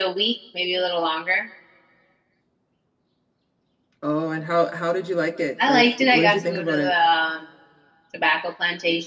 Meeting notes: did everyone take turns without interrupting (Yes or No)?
No